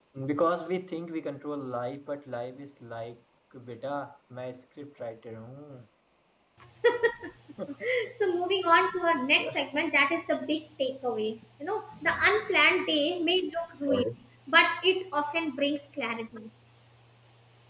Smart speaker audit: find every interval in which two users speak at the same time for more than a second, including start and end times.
none

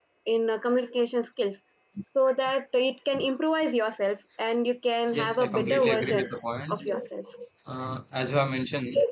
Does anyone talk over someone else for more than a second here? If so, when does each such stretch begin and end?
5.1-6.3

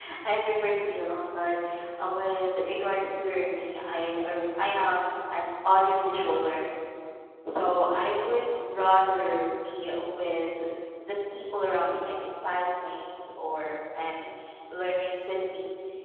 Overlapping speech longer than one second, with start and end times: none

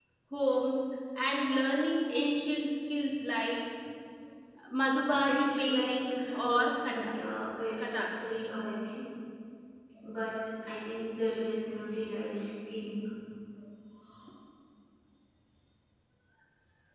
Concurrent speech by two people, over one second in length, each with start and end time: 5.3-7.2

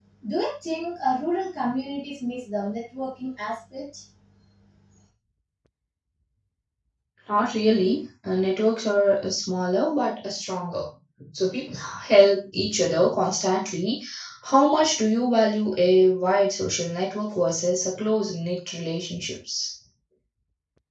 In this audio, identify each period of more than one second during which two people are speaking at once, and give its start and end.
none

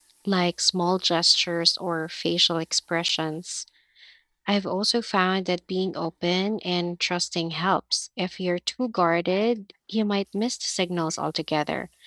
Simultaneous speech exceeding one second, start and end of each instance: none

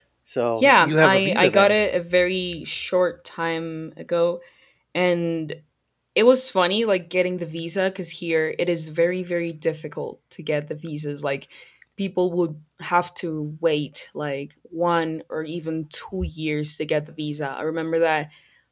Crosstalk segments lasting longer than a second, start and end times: 0.6-1.8

